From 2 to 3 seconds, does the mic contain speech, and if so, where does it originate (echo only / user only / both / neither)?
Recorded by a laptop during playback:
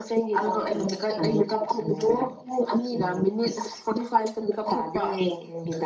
echo only